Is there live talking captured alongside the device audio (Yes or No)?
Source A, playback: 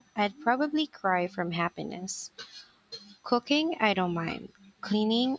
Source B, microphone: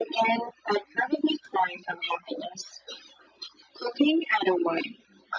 No